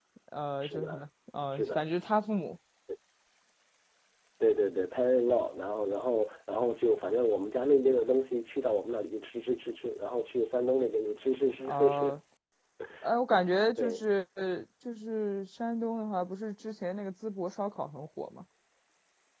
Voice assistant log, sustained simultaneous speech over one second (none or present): none